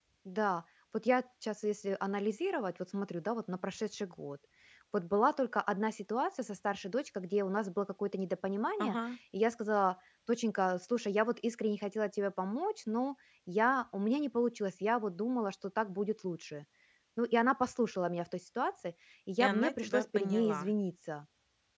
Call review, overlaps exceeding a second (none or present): present